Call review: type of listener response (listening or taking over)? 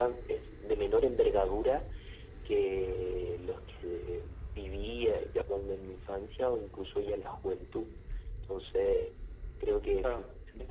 listening